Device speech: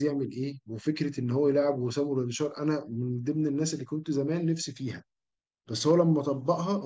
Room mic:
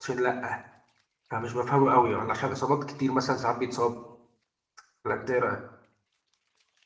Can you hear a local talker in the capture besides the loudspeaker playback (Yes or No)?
Yes